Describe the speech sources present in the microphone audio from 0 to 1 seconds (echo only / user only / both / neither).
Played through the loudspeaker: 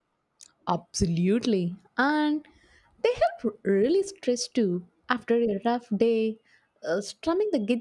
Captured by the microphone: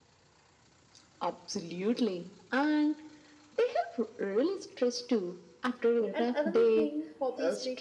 neither